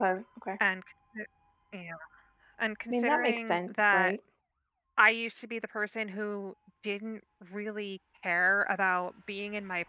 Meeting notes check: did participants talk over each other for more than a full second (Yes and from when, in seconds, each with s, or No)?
Yes, from 2.9 s